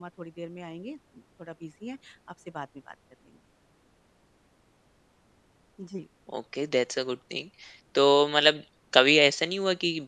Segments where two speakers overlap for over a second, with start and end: none

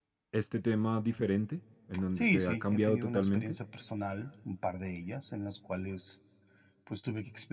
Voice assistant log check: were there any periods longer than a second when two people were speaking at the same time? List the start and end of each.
2.2-3.6

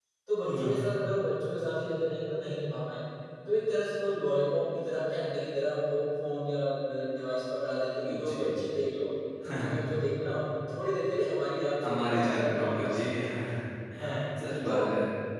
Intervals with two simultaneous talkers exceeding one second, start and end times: 11.8-13.1

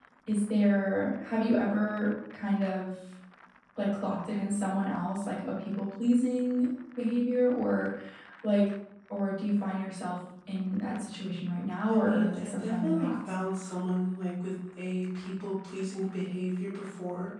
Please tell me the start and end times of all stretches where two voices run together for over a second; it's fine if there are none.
11.9-13.2

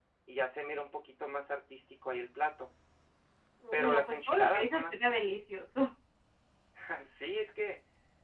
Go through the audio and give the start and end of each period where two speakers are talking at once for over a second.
3.7-5.0

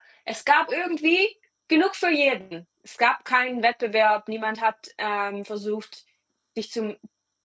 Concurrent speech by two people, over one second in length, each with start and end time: none

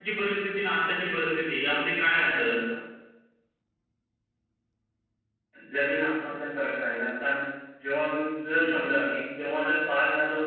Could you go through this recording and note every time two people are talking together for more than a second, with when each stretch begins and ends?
none

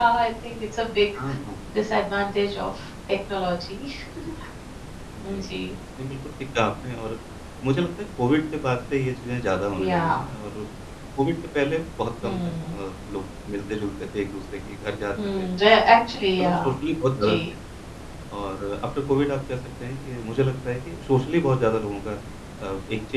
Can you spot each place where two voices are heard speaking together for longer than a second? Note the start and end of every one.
none

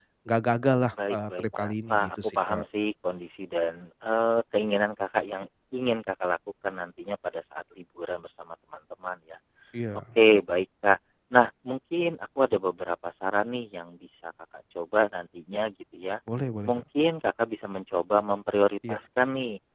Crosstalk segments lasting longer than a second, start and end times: 0.9-2.6

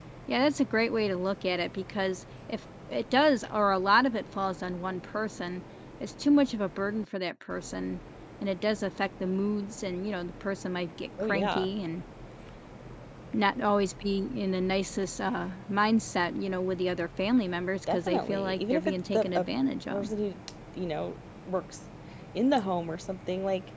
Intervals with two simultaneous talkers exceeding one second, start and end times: 17.9-19.5

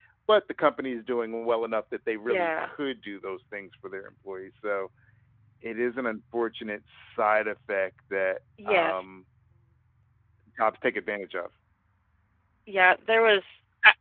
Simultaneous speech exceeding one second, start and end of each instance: none

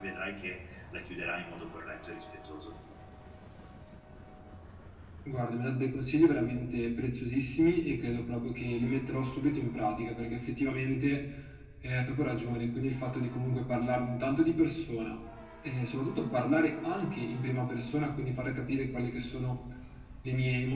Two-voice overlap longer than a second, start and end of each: none

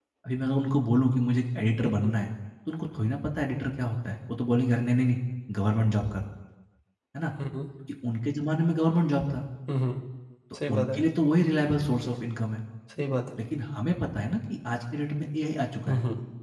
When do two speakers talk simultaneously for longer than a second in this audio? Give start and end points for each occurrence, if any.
none

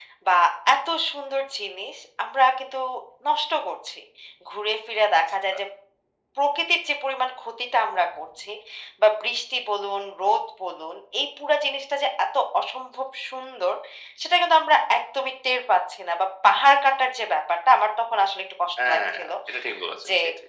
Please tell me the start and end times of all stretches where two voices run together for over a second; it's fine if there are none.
none

